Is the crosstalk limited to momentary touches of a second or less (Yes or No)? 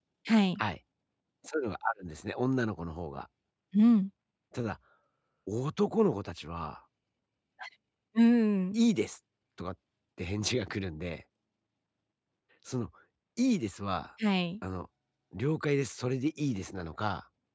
Yes